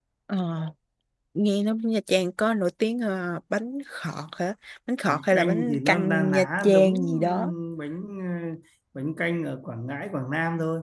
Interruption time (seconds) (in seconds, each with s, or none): 5.1 s